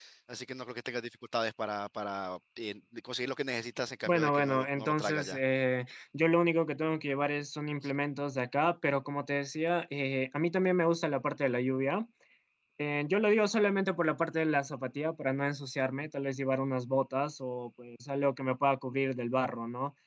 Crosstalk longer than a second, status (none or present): present